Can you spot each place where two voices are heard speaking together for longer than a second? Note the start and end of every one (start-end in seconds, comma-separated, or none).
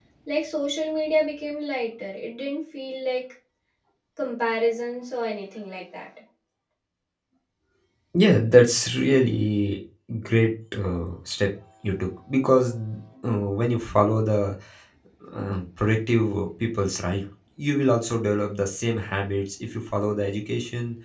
none